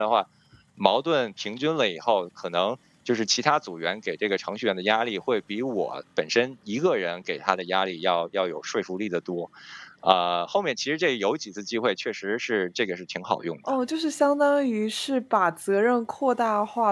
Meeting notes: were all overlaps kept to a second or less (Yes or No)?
Yes